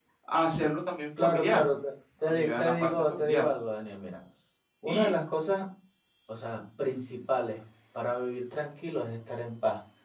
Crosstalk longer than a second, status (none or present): present